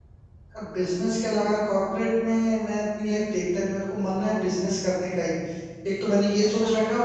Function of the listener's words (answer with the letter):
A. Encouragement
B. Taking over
A